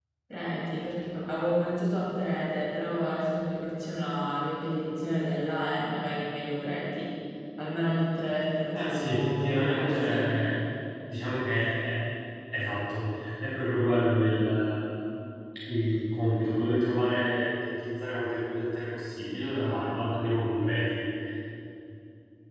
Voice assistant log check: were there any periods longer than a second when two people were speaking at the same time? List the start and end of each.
8.7-10.3

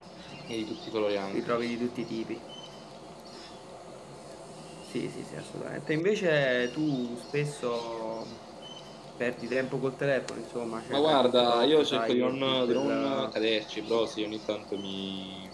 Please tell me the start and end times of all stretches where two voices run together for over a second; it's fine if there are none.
10.9-13.4

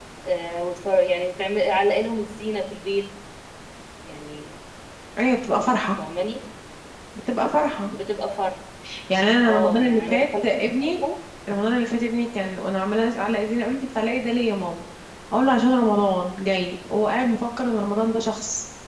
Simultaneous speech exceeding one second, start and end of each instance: 9.4-10.9

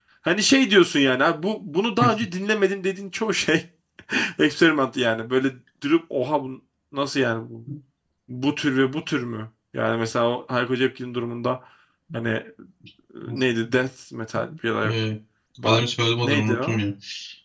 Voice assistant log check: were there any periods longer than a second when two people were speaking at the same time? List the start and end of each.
none

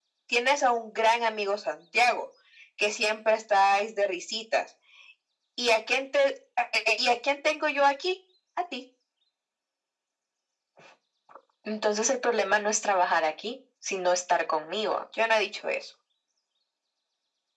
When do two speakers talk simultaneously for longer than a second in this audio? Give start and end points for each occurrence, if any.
none

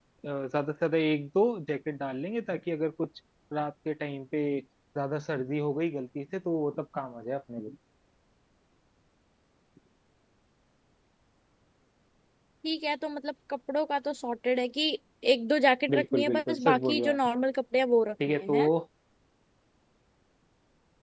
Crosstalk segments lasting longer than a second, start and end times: 15.9-17.2

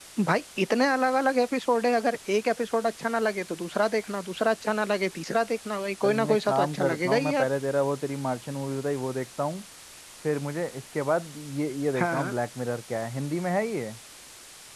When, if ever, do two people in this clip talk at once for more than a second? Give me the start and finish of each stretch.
6.0-7.5

